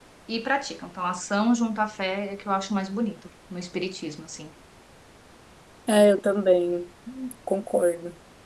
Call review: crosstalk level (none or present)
none